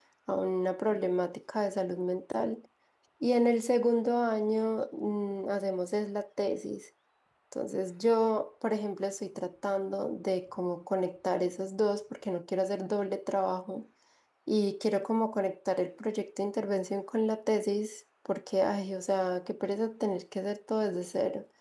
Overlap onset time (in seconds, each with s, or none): none